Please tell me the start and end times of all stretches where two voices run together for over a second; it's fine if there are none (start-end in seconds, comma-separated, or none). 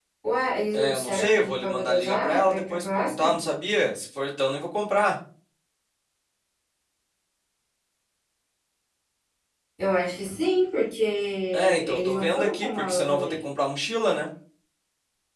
0.7-3.4, 11.5-13.4